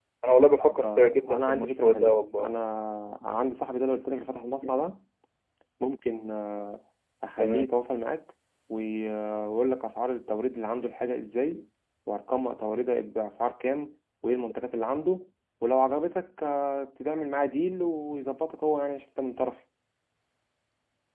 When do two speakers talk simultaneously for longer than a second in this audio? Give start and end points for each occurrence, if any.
0.6-2.5

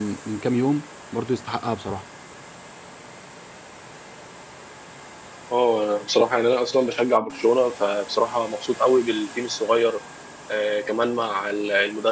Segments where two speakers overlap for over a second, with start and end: none

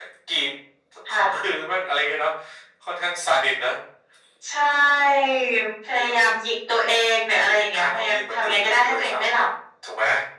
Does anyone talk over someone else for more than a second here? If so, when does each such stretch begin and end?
7.4-9.4

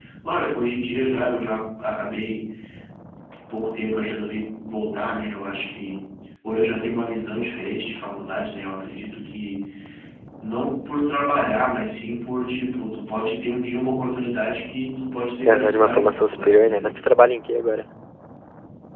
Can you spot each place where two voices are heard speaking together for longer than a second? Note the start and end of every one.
15.5-16.8

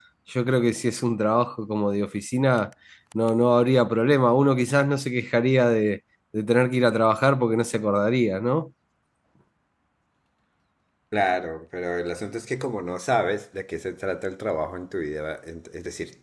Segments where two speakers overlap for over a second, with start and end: none

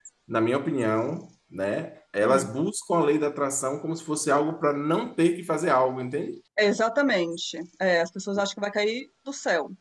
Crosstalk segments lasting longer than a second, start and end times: none

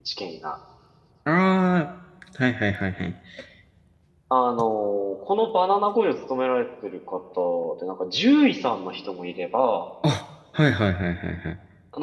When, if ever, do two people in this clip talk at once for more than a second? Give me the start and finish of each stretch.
none

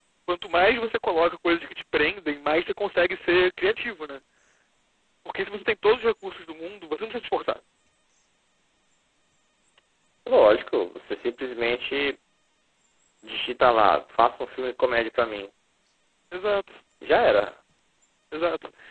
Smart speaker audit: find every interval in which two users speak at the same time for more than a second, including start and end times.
none

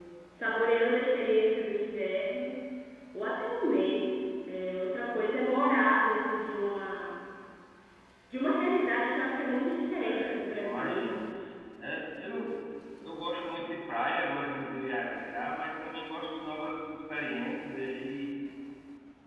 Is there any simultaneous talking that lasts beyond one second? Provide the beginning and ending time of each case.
10.0-11.2

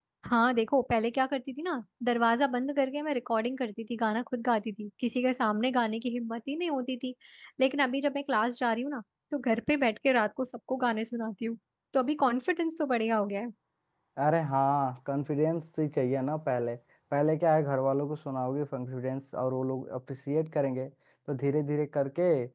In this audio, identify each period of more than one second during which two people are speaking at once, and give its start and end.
none

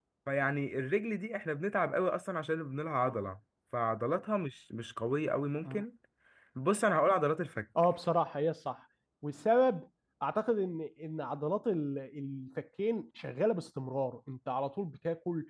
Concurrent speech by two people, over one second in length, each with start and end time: none

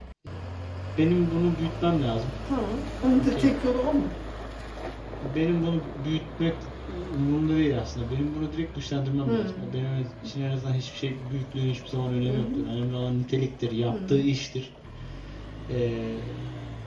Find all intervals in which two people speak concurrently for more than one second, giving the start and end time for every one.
none

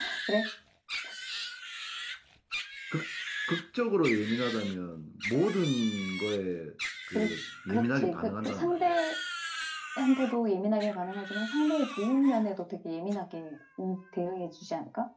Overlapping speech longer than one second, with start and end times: 7.7-8.9

